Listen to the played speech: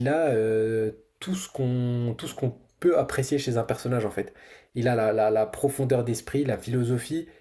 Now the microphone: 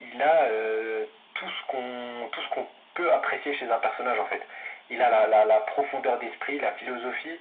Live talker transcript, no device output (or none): none